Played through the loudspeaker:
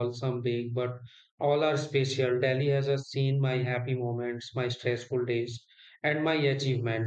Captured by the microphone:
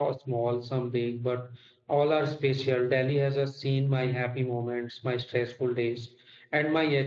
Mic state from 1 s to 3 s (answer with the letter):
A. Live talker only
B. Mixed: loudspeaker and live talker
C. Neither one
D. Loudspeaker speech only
D